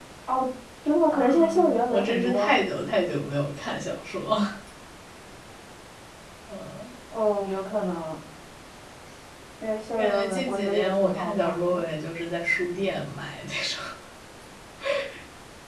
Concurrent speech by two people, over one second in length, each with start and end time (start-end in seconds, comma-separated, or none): 1.1-2.6, 9.9-11.8